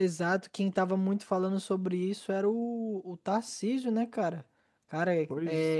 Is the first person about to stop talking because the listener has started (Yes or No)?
No